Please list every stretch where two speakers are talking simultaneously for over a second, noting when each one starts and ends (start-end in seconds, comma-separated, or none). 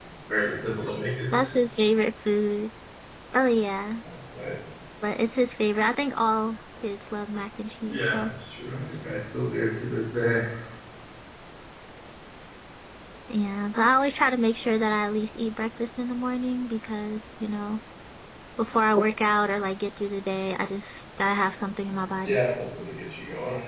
none